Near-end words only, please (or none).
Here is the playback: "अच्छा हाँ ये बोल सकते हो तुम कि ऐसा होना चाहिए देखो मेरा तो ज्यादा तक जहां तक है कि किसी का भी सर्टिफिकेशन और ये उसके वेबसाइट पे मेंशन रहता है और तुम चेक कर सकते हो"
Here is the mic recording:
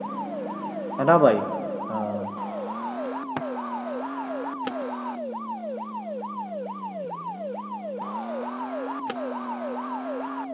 है ना भाई हाँ